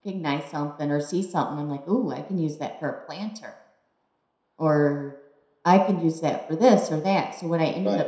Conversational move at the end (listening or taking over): taking over